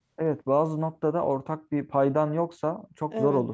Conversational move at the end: listening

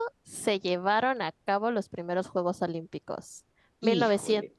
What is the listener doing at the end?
listening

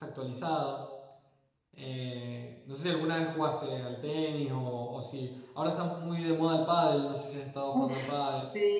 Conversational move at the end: taking over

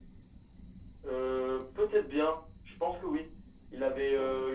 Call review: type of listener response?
listening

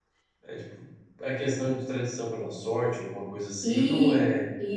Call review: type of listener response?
taking over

